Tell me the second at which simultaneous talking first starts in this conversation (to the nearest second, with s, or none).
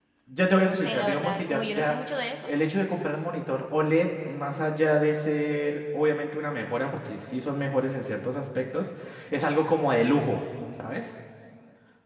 1 s